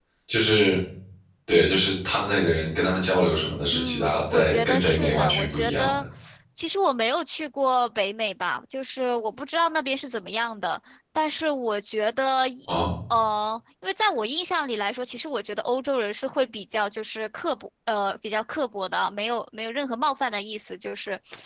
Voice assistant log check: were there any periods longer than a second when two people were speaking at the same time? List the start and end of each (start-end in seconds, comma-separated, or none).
3.7-5.9